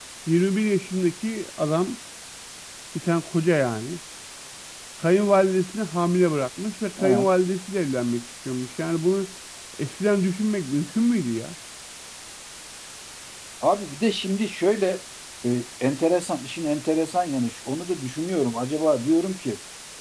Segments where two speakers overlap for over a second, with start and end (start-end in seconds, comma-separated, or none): none